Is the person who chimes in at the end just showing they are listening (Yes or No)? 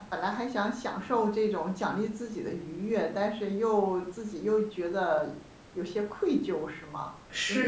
No